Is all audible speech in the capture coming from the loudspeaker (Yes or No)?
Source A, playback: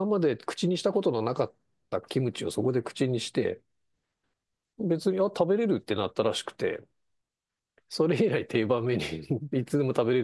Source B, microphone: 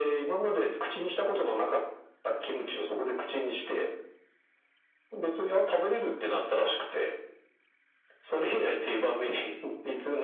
Yes